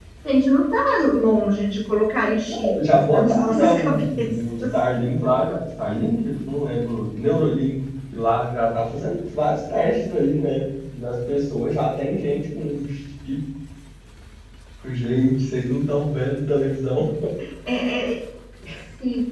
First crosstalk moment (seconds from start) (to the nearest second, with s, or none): 2 s